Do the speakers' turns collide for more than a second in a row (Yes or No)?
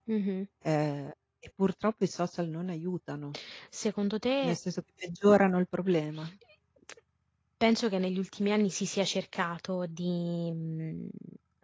No